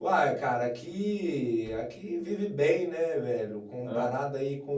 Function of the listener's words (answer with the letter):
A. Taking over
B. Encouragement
B